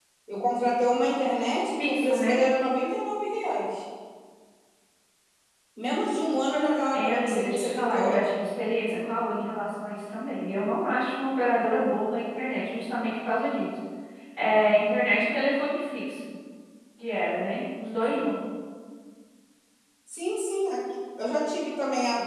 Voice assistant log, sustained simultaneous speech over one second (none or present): present